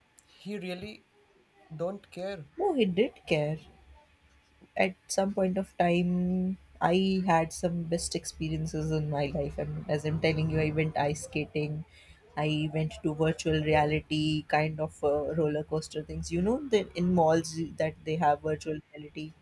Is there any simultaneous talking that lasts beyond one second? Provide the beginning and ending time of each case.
none

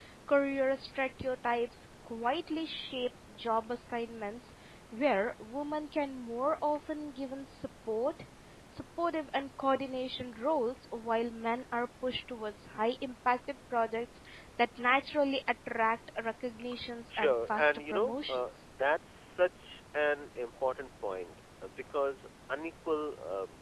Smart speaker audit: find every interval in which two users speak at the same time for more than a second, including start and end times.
17.1-18.4

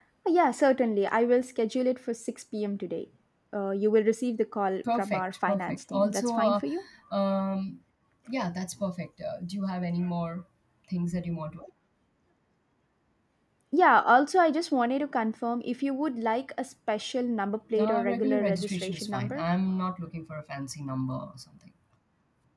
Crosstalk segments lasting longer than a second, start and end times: 5.0-6.6, 17.8-19.4

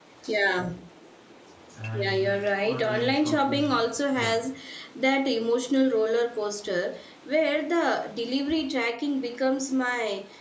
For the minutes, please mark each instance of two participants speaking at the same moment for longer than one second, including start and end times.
1.9-3.7

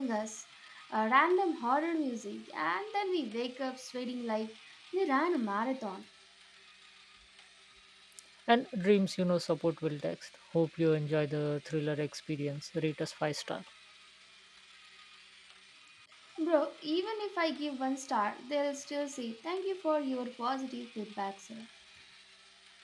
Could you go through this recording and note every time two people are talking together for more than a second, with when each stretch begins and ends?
none

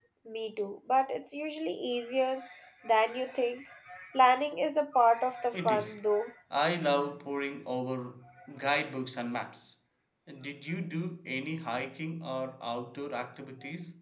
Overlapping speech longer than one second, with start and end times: none

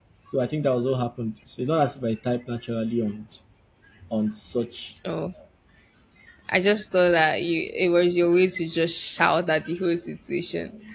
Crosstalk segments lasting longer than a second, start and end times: none

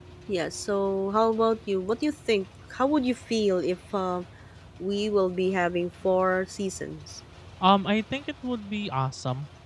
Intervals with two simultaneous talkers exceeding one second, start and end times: none

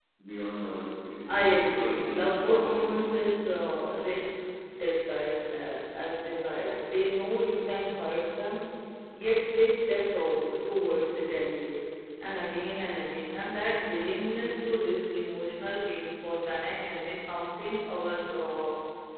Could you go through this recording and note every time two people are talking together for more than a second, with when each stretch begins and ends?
1.3-2.9

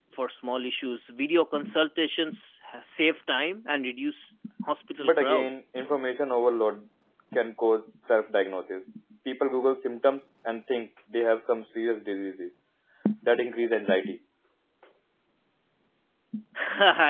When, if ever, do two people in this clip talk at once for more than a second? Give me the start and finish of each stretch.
none

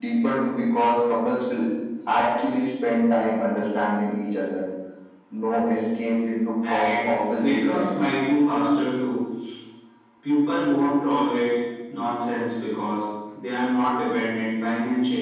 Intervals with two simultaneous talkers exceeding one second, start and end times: 6.7-8.1

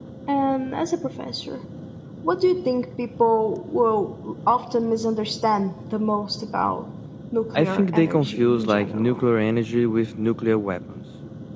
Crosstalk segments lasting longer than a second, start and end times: 7.5-9.2

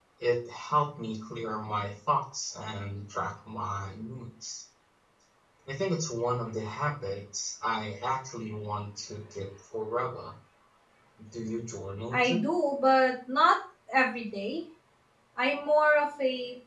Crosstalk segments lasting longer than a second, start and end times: none

